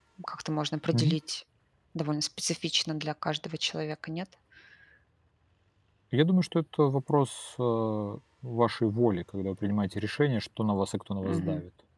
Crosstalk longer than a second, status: none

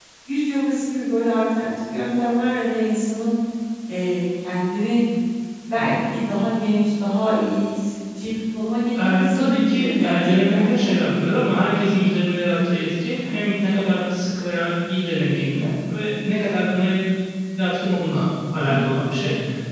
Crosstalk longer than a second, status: present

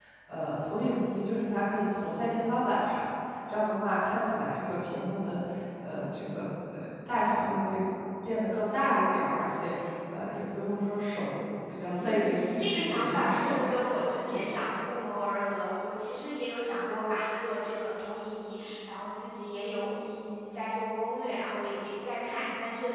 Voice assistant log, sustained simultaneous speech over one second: present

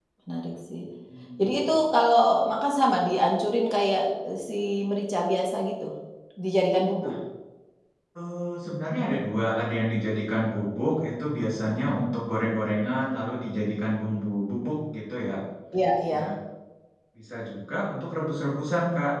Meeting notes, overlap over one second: none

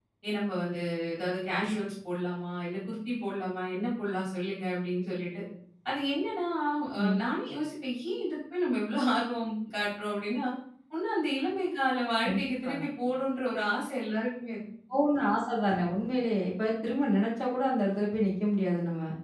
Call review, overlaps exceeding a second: none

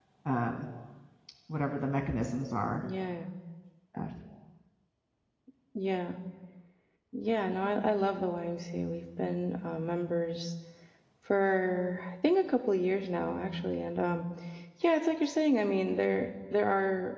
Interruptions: none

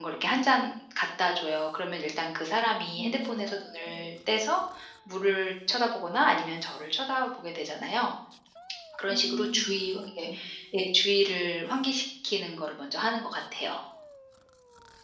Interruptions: present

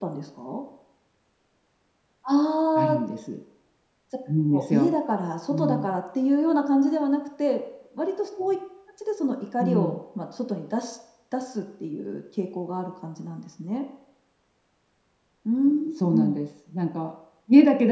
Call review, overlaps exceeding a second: none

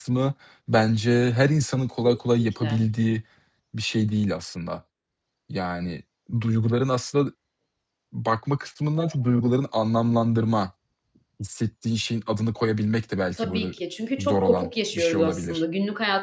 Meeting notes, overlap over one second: present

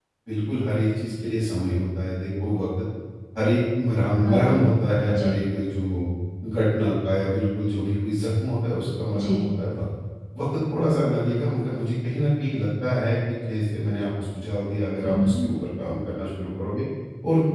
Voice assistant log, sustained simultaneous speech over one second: none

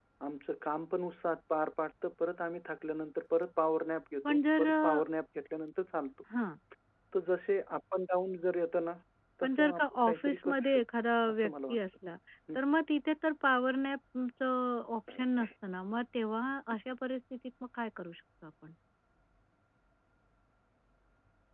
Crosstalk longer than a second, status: present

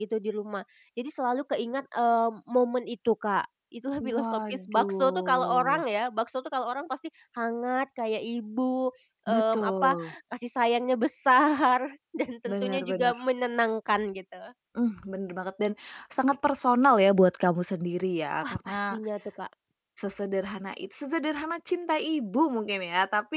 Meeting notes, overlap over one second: present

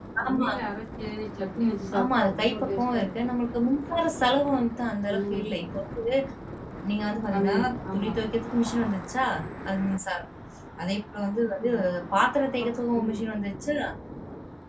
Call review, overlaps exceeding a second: present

